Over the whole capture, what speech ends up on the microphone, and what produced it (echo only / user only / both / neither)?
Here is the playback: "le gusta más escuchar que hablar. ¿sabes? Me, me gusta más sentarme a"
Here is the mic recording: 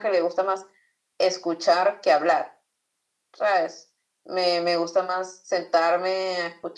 echo only